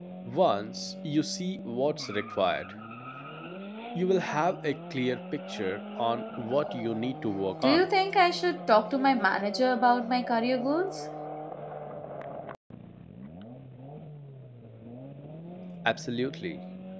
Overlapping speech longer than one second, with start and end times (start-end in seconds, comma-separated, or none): none